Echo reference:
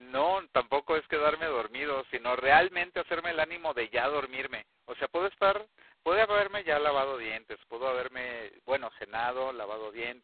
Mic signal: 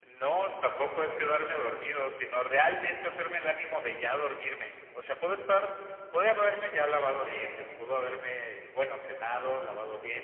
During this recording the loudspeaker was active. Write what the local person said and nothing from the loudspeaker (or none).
none